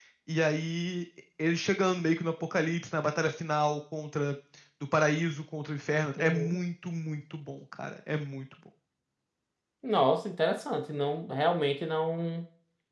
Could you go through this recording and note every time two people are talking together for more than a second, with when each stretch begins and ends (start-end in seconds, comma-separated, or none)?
none